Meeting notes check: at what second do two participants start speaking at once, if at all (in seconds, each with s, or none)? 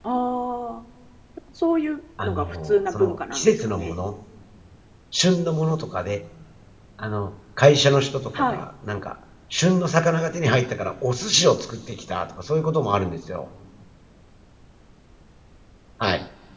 2.2 s